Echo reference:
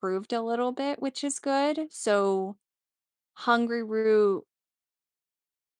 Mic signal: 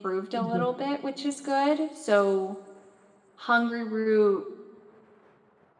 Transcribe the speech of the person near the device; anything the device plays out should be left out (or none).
mhm, mhm.